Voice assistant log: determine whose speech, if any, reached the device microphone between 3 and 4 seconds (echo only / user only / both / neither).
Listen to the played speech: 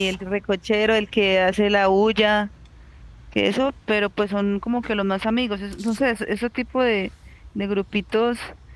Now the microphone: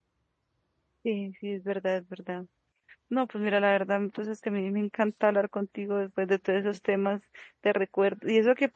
user only